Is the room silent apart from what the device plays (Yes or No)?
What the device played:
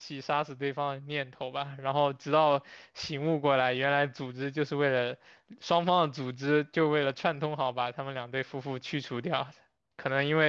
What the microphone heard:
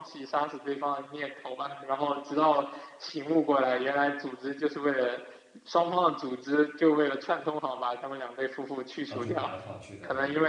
No